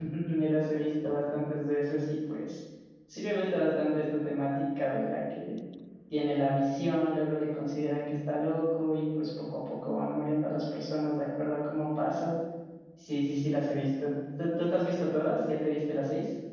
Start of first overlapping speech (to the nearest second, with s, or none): none